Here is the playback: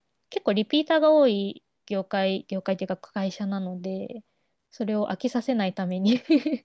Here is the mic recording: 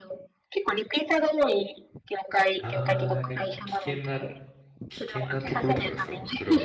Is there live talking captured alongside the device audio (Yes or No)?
Yes